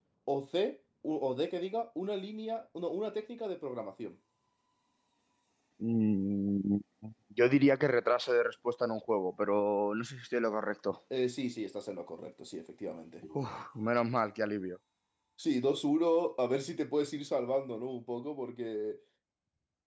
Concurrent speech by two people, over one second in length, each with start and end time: none

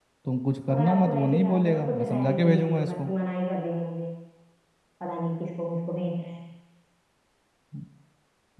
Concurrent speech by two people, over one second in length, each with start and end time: 0.7-3.1

